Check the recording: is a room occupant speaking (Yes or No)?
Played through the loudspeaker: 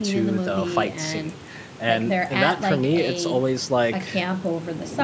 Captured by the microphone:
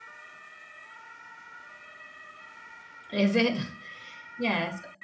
Yes